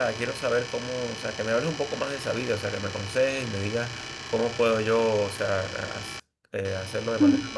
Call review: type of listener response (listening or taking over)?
listening